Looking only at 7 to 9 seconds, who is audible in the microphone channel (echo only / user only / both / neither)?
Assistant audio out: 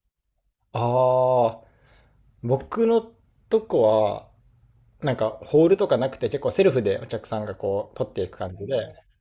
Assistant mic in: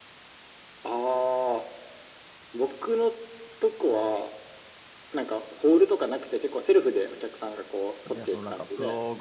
both